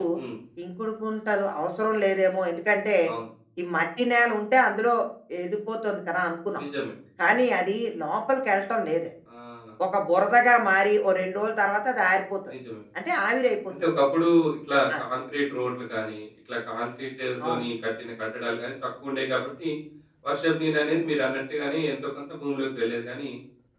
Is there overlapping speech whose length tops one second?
No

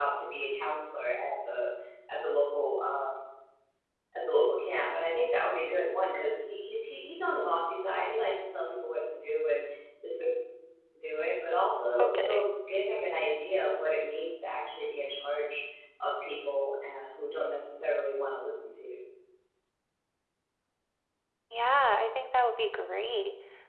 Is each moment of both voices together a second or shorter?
Yes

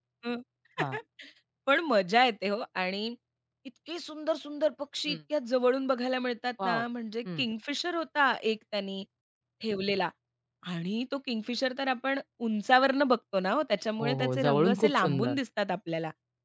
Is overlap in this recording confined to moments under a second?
No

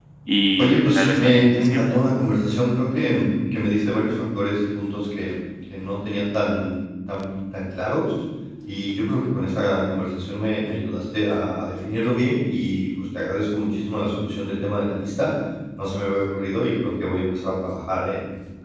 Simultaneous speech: Yes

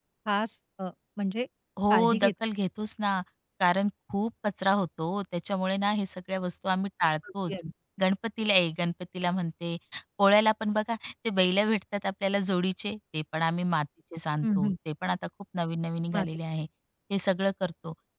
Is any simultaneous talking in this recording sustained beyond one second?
No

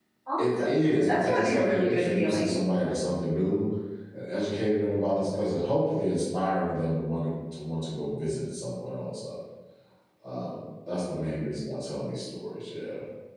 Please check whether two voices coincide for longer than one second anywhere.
Yes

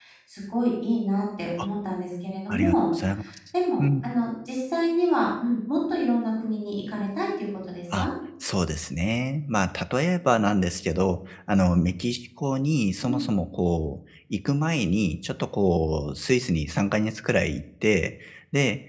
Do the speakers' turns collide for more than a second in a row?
No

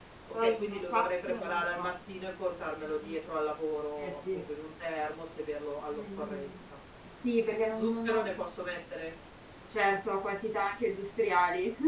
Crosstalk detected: Yes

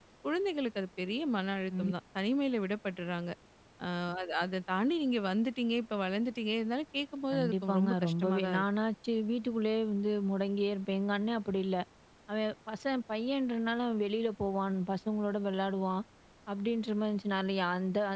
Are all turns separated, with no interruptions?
No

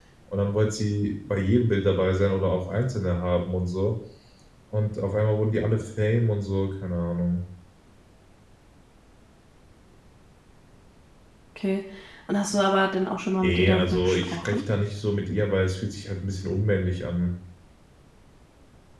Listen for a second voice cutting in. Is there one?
Yes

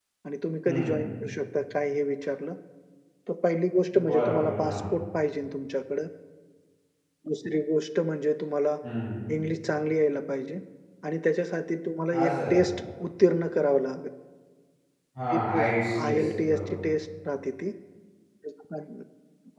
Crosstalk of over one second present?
Yes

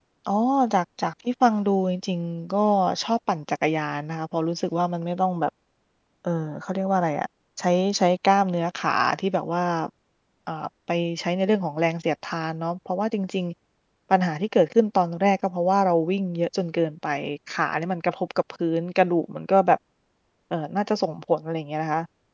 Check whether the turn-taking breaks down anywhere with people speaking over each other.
No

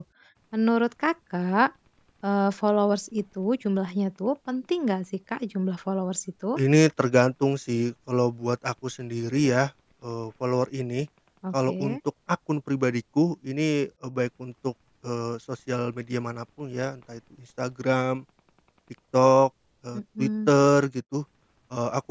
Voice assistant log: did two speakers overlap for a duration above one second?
No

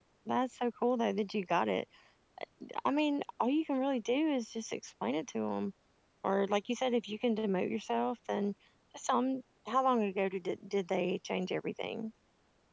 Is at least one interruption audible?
No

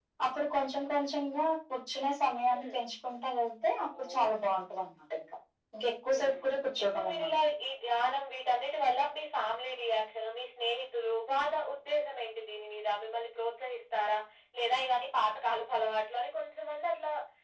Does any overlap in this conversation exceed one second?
No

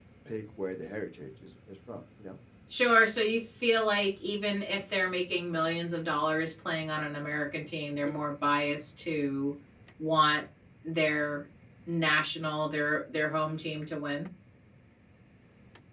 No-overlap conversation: Yes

